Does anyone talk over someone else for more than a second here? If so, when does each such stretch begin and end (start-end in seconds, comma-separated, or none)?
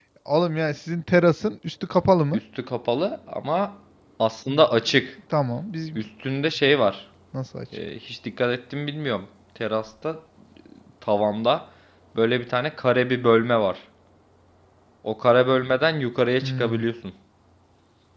none